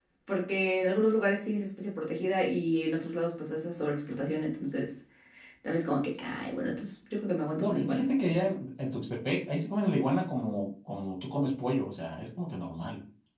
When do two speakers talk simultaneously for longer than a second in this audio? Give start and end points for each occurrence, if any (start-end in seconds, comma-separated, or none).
none